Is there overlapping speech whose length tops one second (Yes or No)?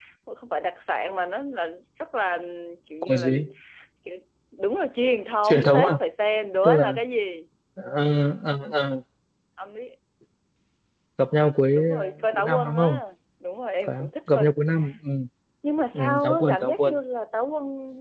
Yes